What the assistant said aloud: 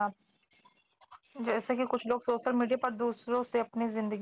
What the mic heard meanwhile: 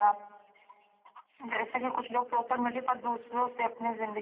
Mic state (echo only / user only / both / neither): echo only